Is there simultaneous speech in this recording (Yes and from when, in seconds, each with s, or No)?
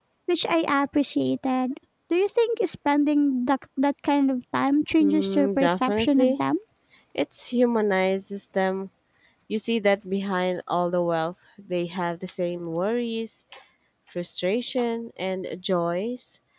Yes, from 5.0 s